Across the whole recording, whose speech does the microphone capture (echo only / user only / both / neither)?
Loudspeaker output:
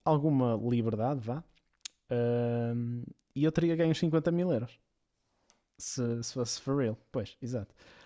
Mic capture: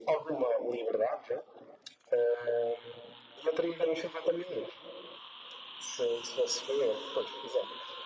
echo only